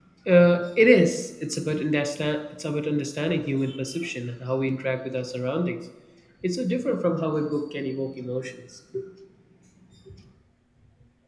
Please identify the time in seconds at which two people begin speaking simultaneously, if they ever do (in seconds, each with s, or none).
none